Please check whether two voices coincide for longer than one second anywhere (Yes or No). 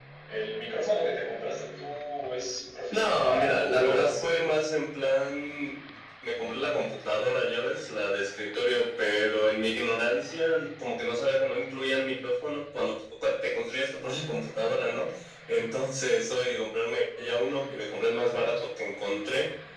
Yes